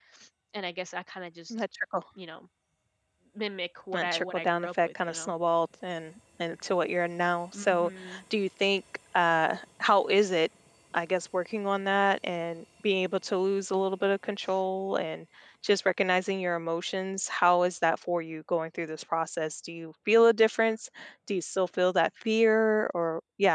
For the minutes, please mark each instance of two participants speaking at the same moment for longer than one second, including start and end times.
3.9-5.3

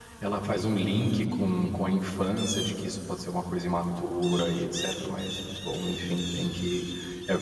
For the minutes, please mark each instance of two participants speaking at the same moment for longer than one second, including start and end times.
none

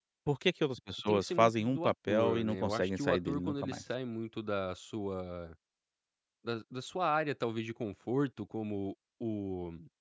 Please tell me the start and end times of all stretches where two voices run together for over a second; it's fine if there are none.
1.1-3.8

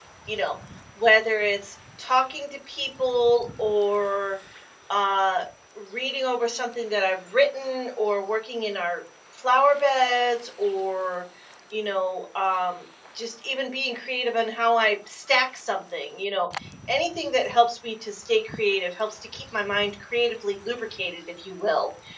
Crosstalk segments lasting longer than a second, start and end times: none

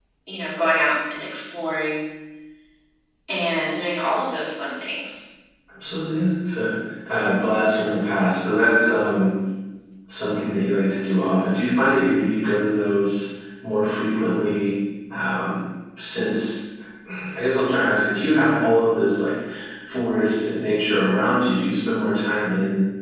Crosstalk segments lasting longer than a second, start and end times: none

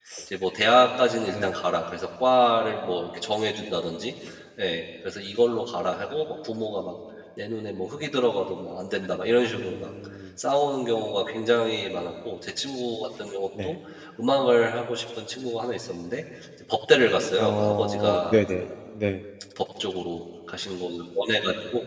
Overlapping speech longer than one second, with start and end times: 17.4-18.6

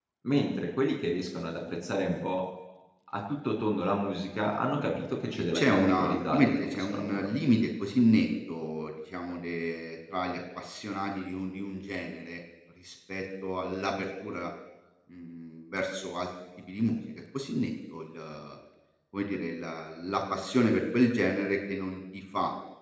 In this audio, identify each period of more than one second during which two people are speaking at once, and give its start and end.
5.5-7.3

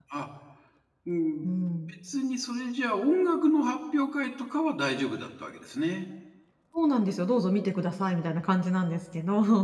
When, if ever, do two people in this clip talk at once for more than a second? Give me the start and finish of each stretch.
none

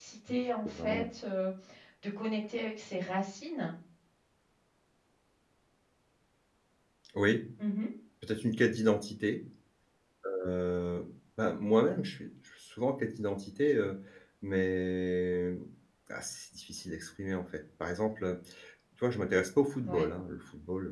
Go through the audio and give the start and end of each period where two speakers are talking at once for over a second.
none

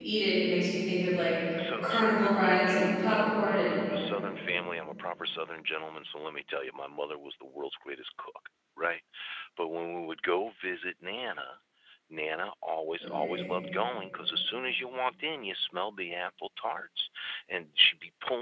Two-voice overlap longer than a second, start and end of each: 1.8-3.8

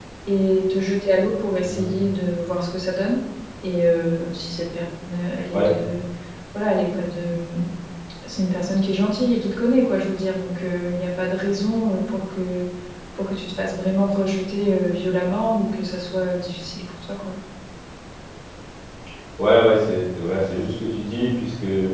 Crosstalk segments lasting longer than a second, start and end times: none

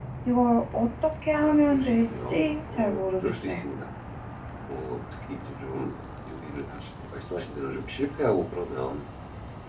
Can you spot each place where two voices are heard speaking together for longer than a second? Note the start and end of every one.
1.4-3.5

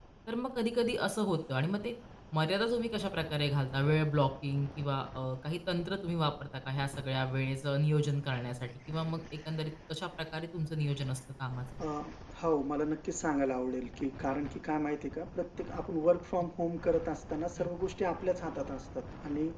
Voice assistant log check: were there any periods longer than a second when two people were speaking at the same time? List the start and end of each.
none

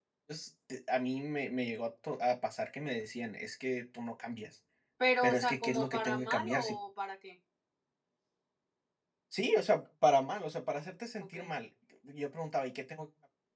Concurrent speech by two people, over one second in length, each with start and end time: 5.2-6.8

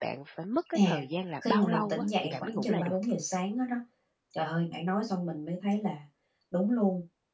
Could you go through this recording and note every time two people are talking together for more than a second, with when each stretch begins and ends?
1.5-3.0

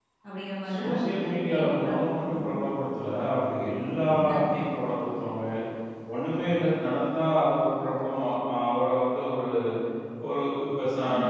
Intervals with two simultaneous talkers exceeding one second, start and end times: 0.7-2.0

